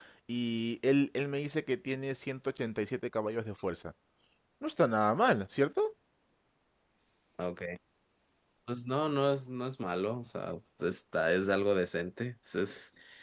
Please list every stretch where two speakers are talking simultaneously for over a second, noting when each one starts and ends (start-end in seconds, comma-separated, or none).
none